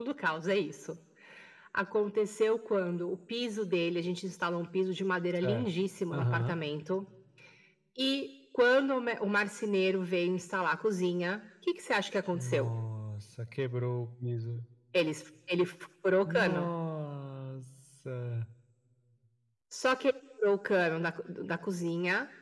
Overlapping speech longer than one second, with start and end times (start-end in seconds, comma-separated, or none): none